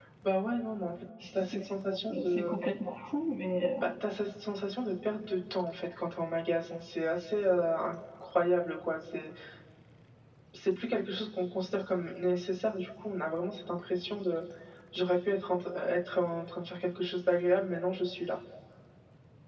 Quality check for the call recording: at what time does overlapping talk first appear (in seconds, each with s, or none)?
1.2 s